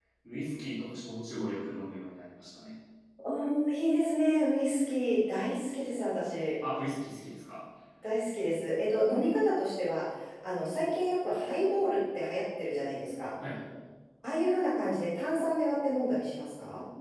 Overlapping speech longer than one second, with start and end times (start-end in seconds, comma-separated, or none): none